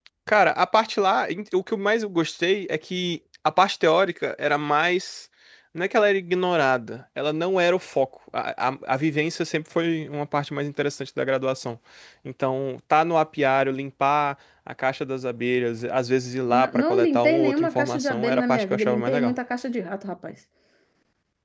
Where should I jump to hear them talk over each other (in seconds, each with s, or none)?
16.5 s